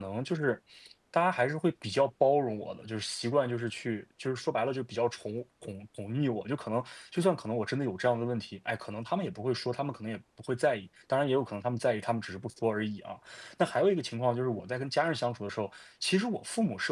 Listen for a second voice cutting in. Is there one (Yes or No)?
No